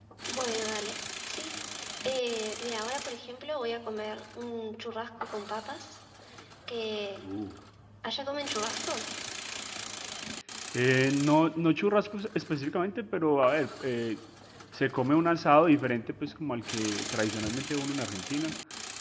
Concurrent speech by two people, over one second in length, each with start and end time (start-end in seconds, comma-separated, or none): none